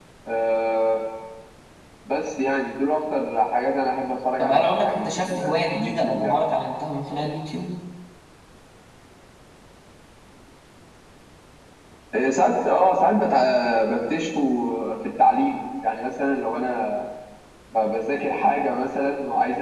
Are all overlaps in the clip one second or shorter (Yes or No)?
No